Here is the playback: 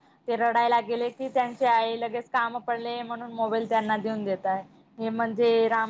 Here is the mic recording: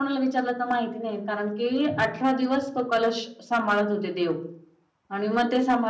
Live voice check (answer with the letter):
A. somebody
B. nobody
A